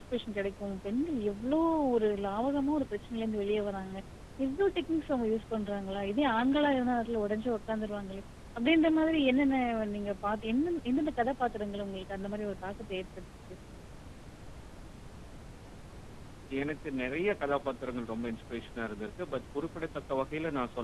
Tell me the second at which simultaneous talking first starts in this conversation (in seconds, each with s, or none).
none